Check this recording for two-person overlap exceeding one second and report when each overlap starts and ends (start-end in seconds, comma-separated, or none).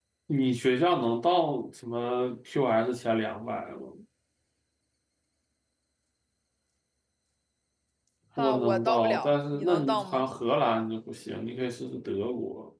8.4-10.2